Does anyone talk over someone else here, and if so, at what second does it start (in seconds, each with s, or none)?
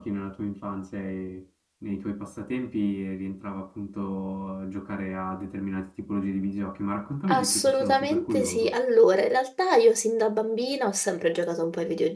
7.3 s